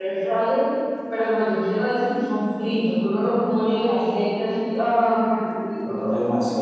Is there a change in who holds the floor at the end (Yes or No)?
Yes